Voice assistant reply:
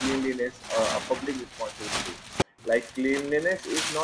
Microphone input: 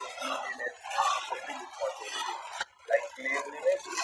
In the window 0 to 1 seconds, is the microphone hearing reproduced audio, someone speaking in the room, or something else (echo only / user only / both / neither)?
echo only